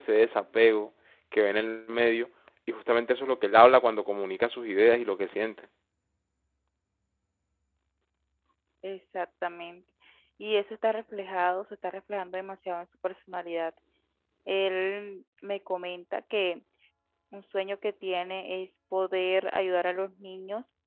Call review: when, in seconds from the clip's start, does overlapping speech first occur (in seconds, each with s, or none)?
none